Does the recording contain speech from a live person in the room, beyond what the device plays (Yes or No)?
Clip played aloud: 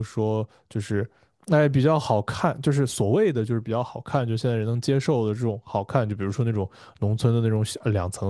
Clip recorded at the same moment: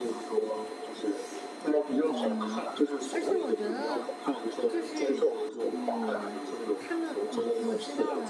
Yes